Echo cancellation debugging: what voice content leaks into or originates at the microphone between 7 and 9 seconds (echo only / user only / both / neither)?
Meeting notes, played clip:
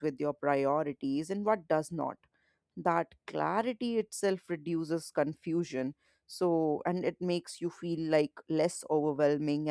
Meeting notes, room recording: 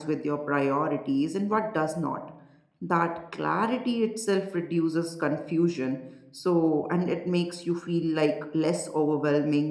echo only